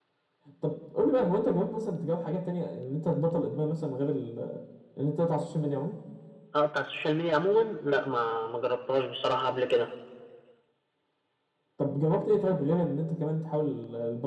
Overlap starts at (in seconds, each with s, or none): none